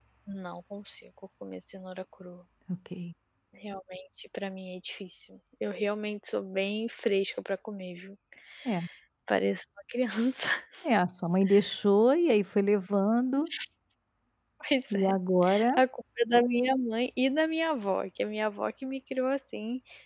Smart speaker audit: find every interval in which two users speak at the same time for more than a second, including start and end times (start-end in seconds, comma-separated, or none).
none